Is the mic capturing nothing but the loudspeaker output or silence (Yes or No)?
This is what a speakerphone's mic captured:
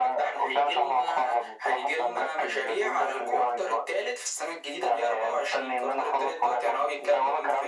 Yes